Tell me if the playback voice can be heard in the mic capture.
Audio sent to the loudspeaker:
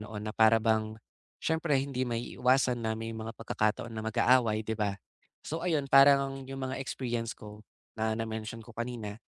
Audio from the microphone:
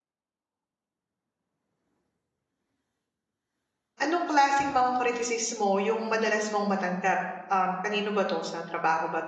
No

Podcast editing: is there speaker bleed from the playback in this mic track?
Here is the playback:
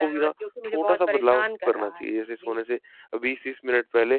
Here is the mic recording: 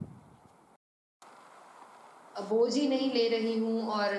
No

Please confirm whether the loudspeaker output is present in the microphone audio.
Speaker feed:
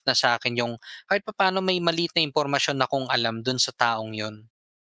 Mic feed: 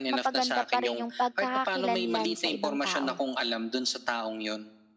Yes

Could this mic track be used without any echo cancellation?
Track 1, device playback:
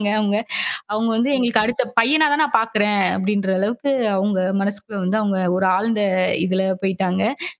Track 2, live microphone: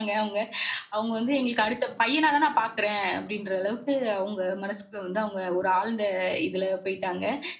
No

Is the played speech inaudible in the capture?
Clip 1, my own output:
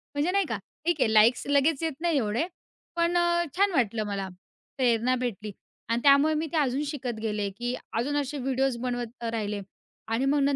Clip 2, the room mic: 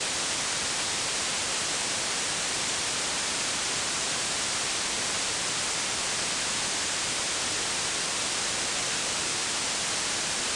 Yes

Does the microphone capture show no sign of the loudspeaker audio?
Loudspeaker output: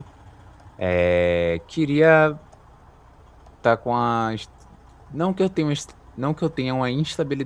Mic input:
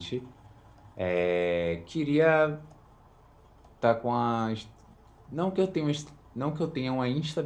No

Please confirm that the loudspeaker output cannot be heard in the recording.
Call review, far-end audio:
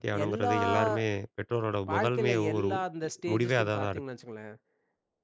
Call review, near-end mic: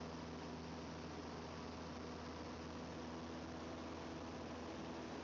Yes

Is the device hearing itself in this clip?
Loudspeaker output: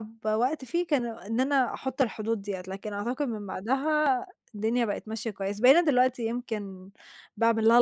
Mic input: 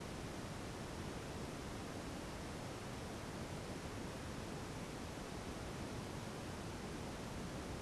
No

